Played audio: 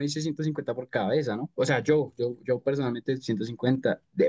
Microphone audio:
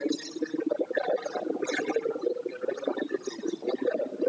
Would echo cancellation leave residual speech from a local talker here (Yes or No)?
No